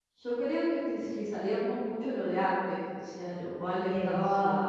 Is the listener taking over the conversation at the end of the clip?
No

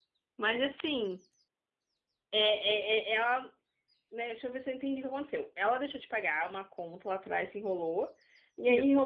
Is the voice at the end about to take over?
No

